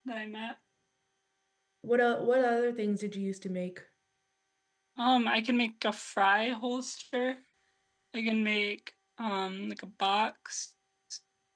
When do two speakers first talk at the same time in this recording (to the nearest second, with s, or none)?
none